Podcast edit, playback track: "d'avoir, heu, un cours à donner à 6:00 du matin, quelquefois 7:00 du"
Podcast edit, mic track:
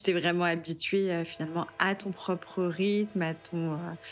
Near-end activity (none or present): present